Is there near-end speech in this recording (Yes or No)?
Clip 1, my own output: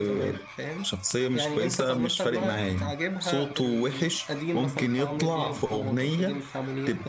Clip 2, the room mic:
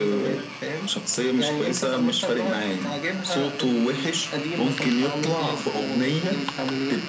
No